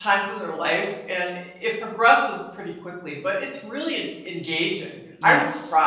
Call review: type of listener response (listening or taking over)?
taking over